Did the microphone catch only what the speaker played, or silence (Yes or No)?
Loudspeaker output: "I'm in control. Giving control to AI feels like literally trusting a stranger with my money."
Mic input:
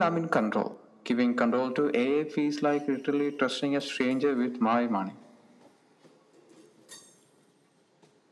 Yes